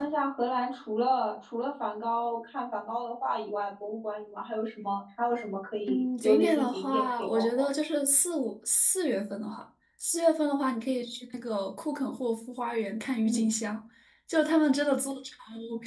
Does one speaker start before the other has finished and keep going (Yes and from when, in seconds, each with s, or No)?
Yes, from 5.9 s